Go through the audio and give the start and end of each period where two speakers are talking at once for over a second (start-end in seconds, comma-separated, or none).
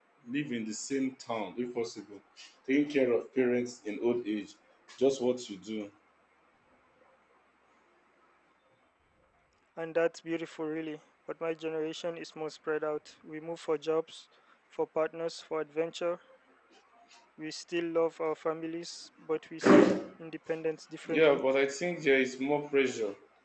none